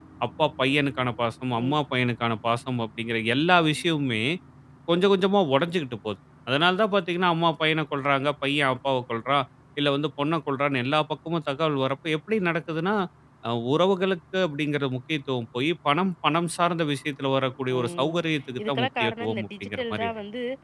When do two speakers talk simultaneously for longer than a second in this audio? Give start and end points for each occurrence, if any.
18.6-20.1

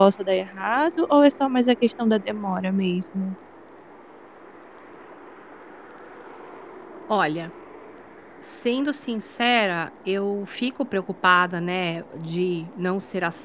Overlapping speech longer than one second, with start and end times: none

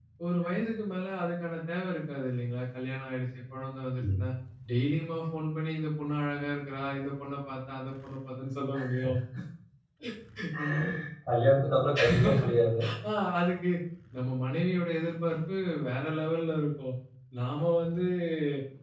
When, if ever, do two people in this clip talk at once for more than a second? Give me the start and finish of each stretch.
none

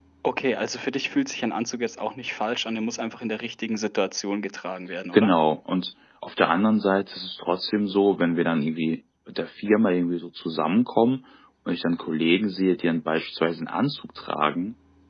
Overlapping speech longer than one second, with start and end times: none

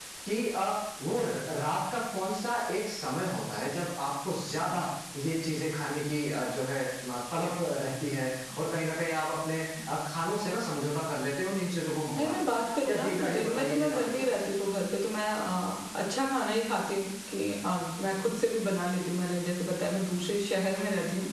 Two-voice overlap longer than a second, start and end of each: 12.2-14.5

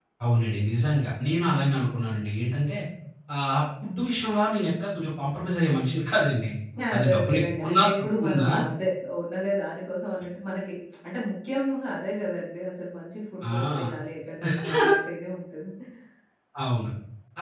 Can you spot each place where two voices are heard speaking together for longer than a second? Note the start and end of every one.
6.9-8.5

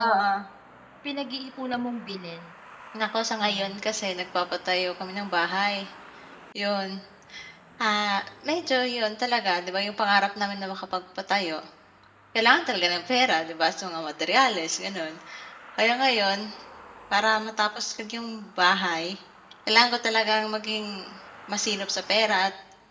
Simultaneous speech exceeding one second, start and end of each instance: none

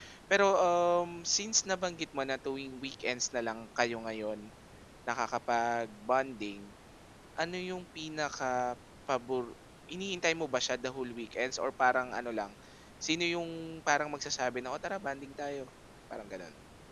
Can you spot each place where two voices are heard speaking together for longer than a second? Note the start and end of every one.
none

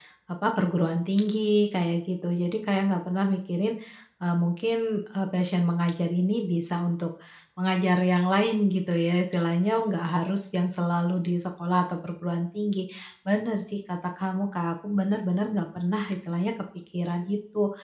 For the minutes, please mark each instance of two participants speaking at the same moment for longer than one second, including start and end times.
none

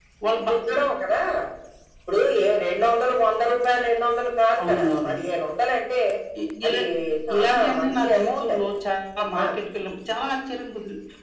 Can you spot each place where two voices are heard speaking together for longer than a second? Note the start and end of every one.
7.4-8.6

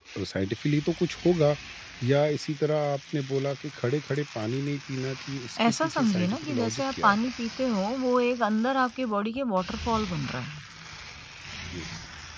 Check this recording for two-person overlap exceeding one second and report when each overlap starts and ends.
5.7-7.3

